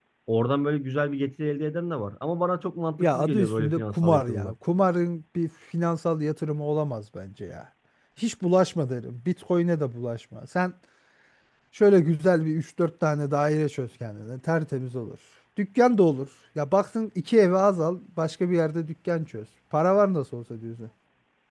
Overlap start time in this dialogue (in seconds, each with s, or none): 3.0 s